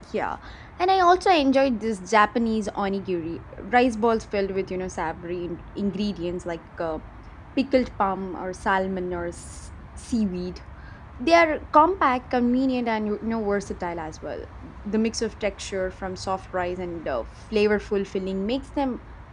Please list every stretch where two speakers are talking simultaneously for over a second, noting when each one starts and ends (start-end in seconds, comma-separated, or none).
none